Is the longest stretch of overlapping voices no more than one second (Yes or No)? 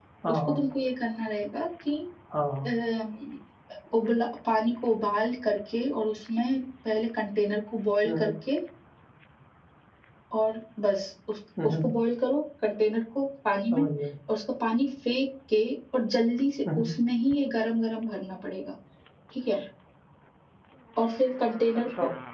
Yes